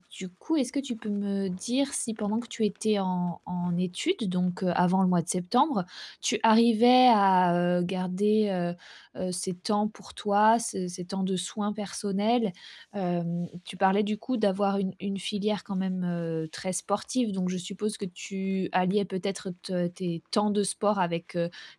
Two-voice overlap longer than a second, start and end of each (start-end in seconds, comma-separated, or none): none